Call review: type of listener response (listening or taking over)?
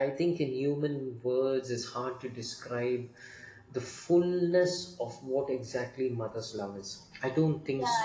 taking over